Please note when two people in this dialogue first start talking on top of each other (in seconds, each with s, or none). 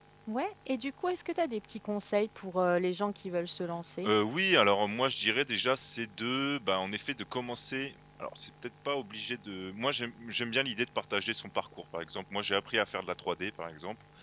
none